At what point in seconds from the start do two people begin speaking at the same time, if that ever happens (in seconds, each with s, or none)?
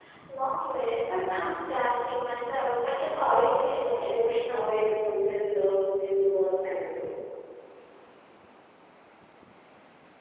2.9 s